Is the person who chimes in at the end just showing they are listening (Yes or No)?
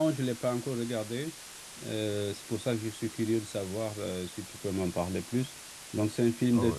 Yes